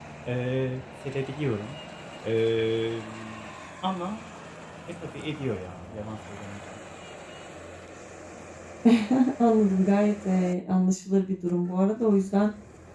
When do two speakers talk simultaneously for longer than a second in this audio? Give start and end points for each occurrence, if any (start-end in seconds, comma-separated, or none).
none